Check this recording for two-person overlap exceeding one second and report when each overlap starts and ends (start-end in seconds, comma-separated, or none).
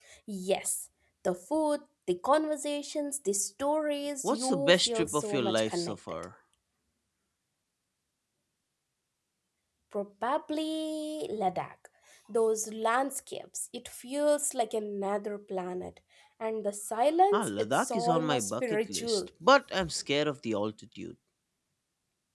4.2-6.2, 17.3-19.2